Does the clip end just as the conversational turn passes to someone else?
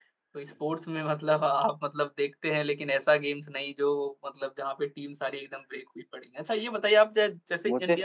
No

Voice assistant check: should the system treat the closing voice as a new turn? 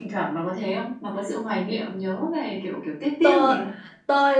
Yes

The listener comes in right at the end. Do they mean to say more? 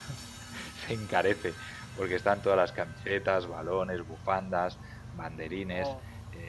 No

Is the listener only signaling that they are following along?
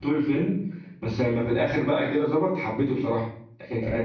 Yes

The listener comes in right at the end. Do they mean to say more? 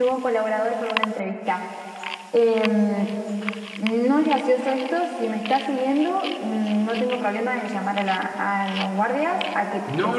Yes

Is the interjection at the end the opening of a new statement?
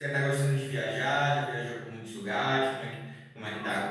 Yes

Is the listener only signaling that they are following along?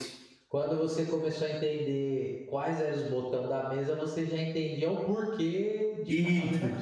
No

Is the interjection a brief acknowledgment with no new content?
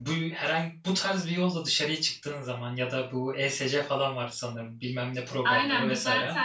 No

